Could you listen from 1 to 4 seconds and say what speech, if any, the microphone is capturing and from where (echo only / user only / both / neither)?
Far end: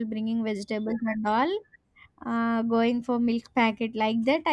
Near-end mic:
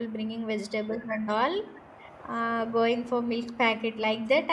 echo only